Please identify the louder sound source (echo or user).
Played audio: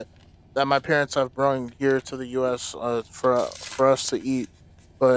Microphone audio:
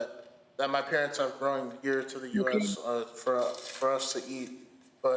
user